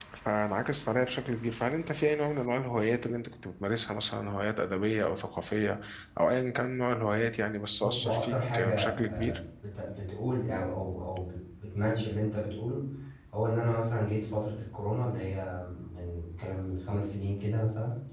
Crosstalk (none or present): present